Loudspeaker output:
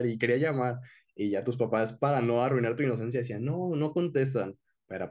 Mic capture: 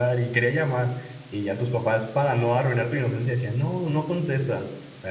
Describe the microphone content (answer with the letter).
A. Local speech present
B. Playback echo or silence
B